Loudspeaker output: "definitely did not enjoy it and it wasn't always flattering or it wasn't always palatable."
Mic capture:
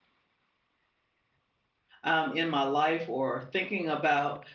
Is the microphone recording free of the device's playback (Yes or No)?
Yes